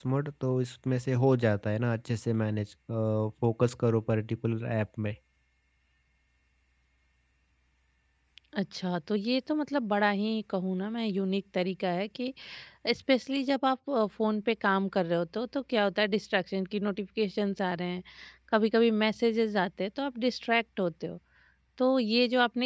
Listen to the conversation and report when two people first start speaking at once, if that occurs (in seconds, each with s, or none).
none